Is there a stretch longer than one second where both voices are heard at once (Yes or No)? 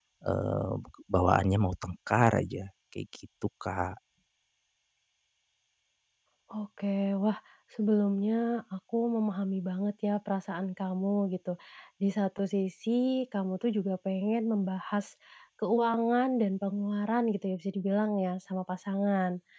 No